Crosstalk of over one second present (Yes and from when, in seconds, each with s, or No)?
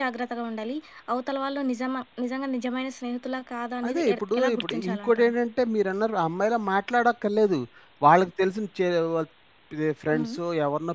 Yes, from 3.8 s